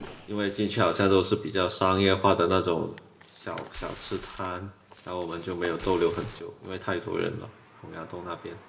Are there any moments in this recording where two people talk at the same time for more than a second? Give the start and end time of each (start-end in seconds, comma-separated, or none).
none